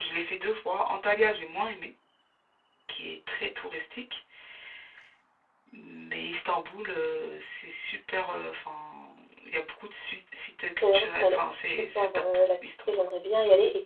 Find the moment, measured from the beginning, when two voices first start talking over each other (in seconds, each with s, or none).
10.8 s